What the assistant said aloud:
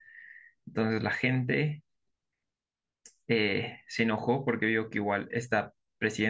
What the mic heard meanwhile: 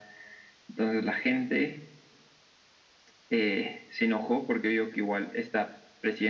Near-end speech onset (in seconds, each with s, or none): none